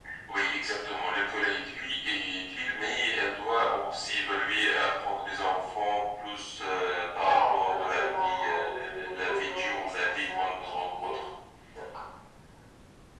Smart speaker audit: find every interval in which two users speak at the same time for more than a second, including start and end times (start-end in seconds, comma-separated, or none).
7.2-11.2